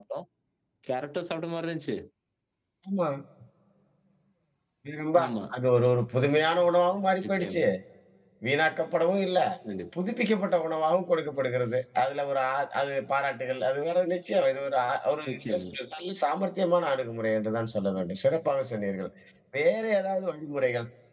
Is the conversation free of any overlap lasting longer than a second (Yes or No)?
Yes